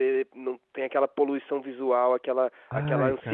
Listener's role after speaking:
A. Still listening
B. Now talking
A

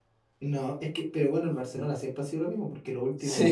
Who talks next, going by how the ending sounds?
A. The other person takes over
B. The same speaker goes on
B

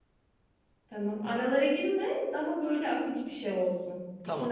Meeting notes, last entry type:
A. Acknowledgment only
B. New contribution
B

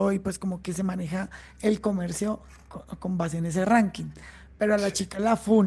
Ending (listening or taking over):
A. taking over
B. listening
B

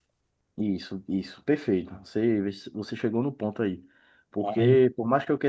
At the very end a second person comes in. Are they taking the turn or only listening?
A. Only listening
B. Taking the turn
A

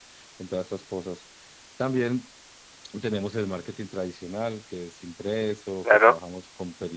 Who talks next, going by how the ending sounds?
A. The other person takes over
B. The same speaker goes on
B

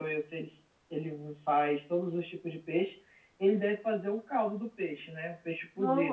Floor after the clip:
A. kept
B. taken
B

